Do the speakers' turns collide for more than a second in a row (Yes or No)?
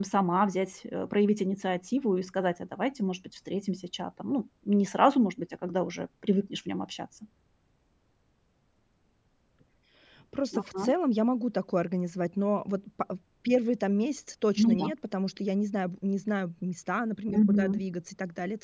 No